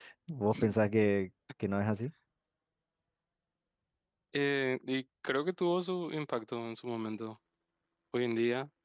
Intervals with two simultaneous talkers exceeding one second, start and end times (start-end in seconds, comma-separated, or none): none